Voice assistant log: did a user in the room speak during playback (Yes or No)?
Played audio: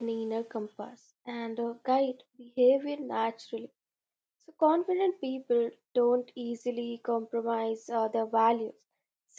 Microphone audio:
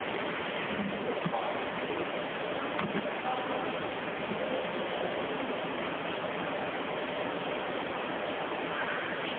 No